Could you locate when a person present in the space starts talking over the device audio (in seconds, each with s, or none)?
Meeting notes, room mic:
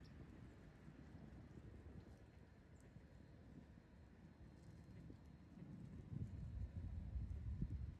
none